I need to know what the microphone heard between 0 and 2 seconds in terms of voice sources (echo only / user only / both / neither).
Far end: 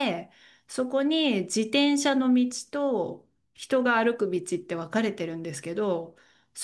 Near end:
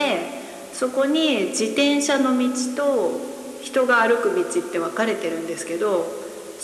echo only